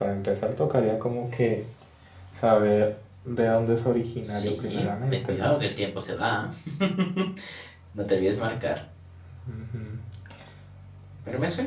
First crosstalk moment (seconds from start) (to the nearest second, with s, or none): 4 s